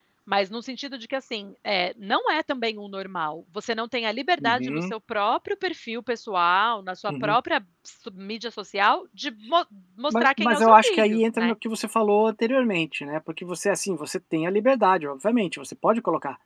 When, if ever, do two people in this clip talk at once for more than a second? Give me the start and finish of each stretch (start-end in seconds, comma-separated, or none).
10.1-11.5